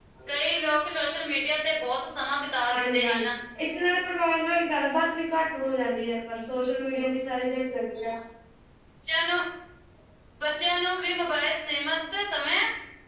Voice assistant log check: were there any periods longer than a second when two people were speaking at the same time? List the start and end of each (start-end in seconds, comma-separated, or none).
none